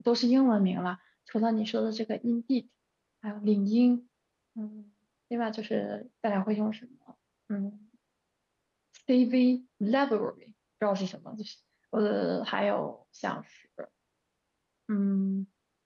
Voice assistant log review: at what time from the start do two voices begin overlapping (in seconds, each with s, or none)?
none